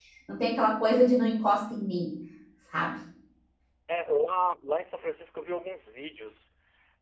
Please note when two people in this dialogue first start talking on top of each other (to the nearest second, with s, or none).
none